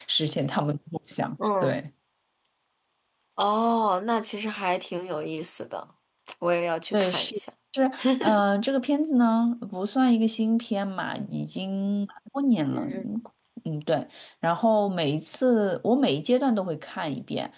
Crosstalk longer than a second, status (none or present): none